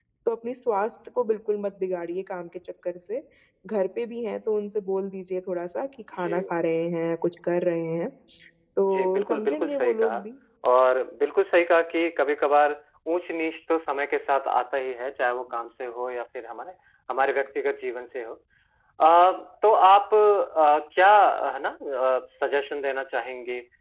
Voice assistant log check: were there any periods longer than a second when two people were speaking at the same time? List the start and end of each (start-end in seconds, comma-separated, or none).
8.8-10.2